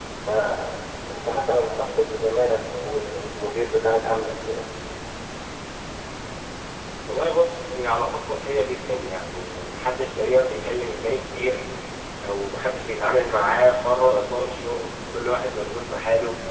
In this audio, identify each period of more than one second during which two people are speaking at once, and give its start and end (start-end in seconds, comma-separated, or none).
none